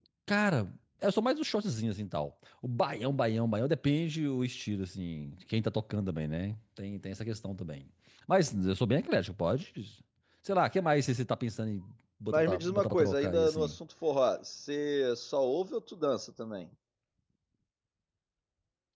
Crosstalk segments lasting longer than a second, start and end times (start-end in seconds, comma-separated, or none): 12.3-13.8